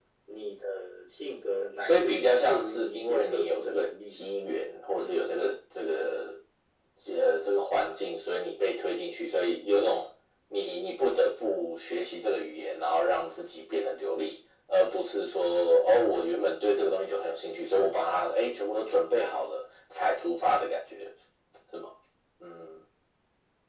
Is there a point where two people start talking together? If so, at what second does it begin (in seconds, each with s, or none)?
1.8 s